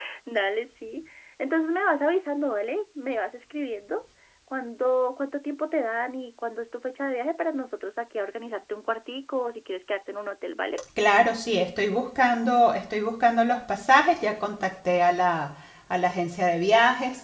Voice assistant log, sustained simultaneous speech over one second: none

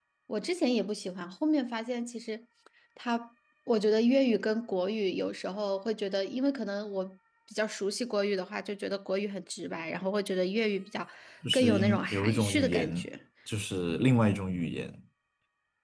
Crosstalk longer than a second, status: present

